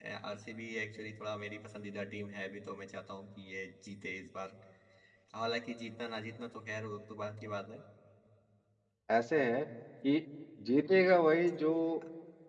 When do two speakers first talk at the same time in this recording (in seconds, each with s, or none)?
none